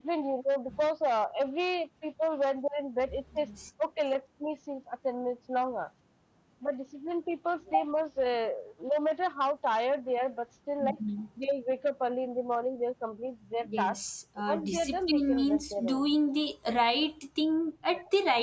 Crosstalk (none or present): present